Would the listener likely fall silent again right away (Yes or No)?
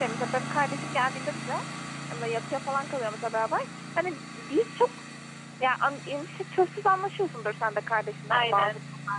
Yes